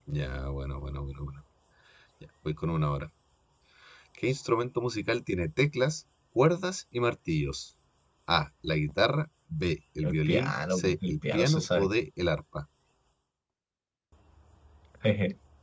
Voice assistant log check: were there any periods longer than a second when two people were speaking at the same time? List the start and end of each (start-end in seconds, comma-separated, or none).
10.0-11.9